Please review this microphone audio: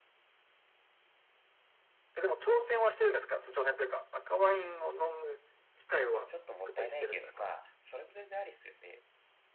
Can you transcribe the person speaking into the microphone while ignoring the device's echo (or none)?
ちょっともったいないけど、まあ、それも全然ありっすよね。